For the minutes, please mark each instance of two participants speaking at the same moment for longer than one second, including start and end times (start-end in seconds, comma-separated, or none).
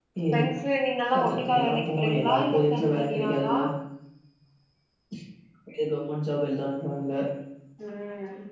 1.1-3.6